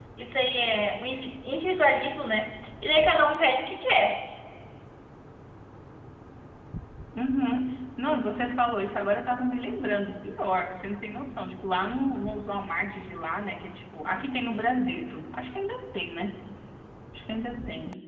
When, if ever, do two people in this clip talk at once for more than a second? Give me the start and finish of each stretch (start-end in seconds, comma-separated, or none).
none